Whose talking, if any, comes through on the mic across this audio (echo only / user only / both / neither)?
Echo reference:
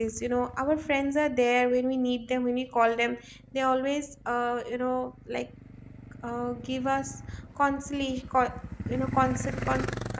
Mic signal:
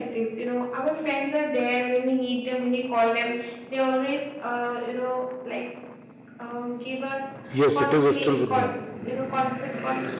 both